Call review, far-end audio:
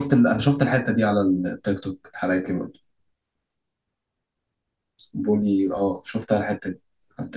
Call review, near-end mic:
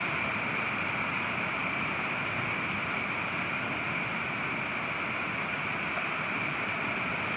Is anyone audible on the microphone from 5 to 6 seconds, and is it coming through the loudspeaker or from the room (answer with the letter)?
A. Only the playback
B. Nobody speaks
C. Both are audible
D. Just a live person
B